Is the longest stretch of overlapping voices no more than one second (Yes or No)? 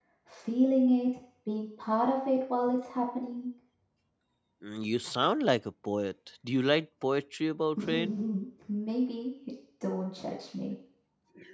Yes